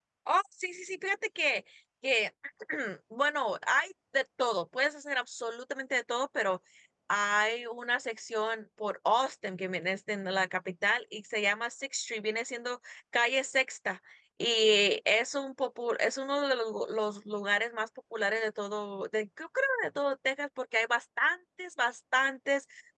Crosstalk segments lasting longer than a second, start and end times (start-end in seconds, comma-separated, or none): none